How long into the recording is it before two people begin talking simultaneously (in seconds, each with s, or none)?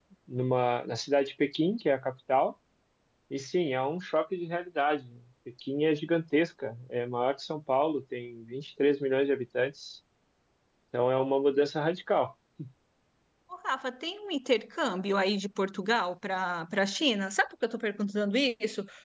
none